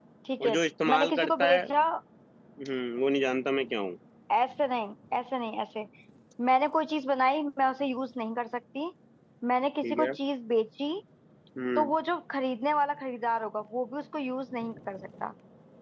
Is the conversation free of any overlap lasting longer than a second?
No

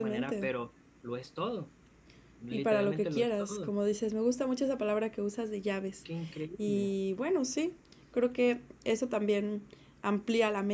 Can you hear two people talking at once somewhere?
Yes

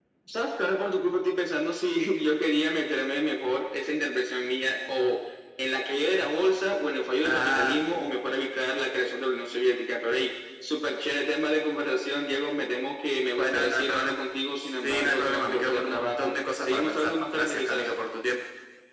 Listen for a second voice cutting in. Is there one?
Yes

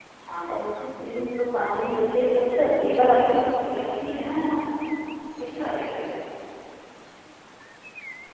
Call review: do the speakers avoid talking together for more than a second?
No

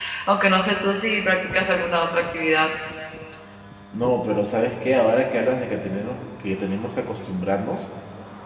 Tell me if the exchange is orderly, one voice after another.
Yes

